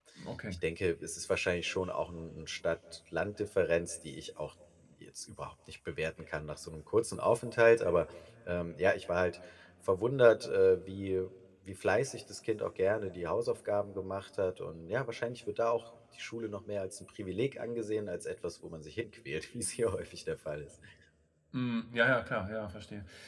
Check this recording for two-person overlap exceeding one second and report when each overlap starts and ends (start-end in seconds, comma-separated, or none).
none